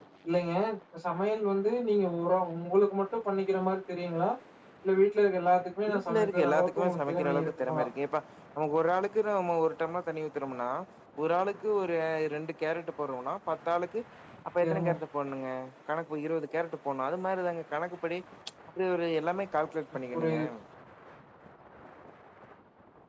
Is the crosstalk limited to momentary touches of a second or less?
No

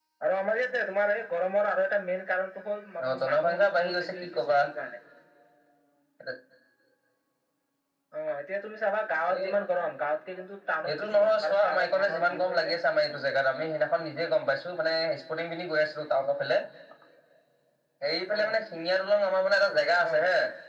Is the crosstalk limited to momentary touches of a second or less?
No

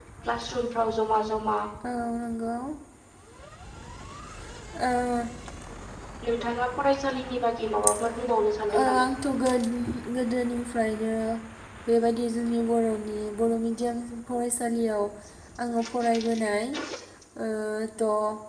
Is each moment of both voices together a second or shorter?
Yes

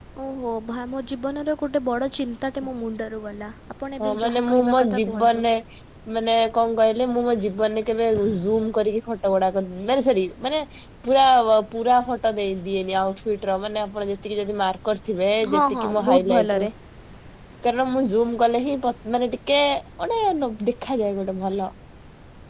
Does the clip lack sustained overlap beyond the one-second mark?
No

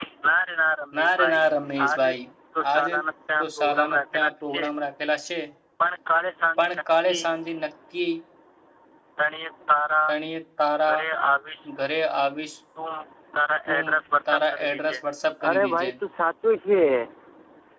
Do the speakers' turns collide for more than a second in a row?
Yes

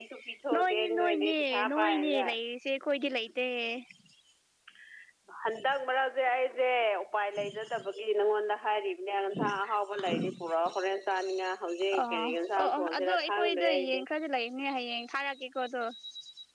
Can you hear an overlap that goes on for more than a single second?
Yes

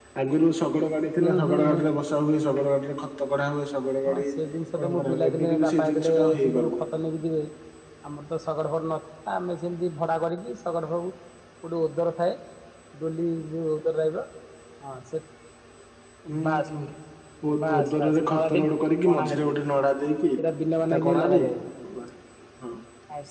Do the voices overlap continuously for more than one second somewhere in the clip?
Yes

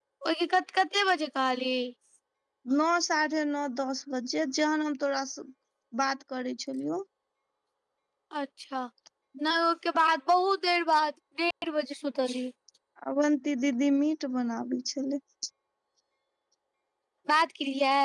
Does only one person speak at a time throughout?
Yes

